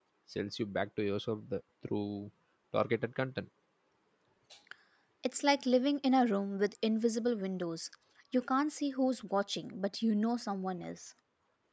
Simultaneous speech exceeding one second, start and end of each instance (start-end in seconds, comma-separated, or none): none